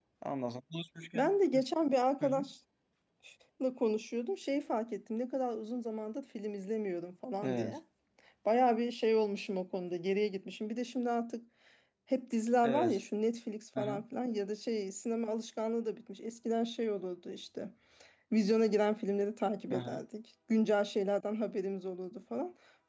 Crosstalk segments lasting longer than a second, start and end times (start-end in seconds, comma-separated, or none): none